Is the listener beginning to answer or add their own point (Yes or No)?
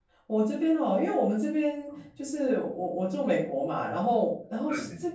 No